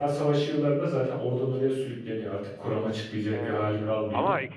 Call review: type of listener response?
taking over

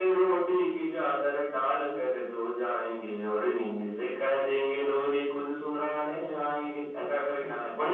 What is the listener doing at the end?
taking over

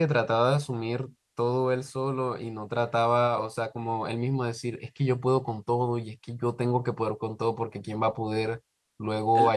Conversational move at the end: listening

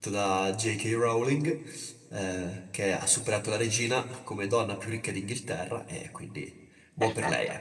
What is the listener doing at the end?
taking over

